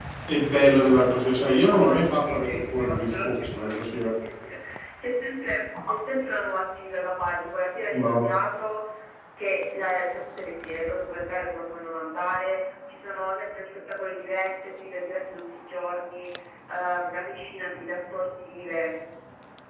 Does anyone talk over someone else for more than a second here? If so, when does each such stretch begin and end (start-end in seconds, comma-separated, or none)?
1.6-4.2